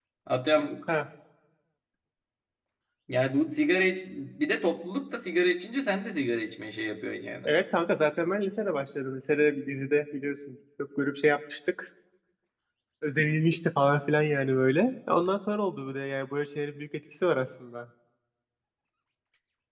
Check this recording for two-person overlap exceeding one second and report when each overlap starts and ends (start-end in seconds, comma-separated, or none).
none